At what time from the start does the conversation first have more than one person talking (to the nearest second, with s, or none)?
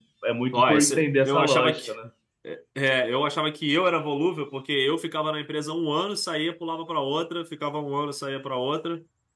1 s